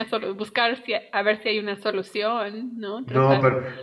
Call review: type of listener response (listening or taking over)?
taking over